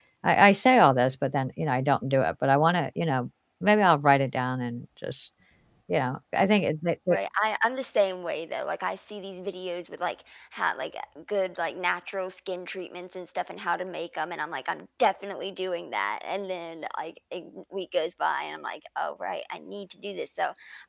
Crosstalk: none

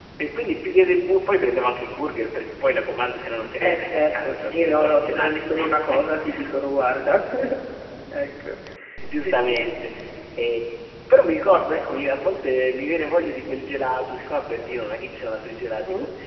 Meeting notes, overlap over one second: present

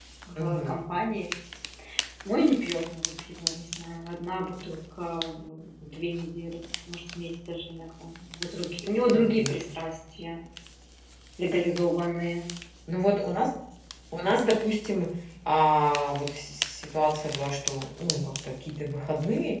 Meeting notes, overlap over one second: none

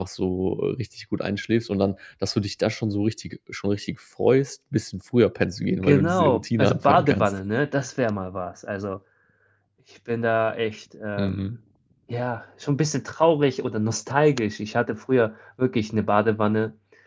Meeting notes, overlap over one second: present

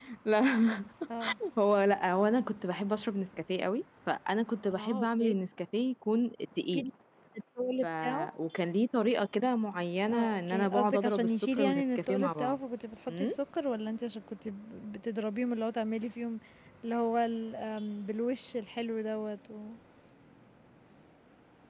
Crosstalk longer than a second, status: present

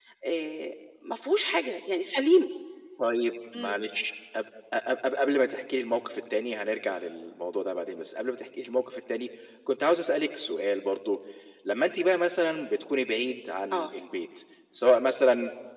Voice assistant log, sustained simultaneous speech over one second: none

